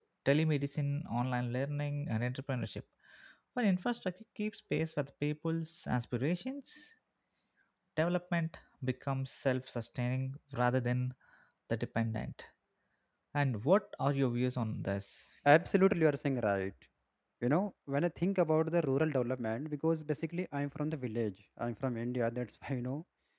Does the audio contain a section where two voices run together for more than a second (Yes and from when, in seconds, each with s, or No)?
No